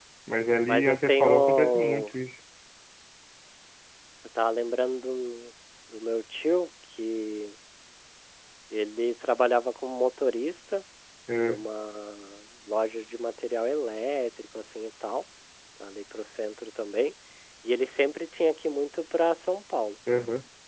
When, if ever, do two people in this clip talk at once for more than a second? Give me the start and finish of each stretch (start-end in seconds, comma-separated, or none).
0.7-2.0